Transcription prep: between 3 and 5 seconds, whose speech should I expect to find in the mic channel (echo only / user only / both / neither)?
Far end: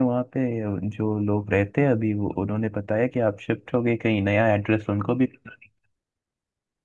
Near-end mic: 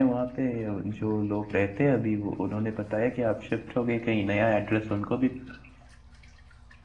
echo only